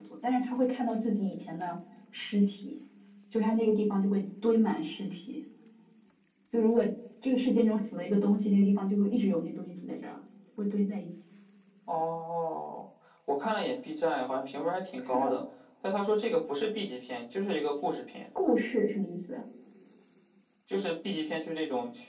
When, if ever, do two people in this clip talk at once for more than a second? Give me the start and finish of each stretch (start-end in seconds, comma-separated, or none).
none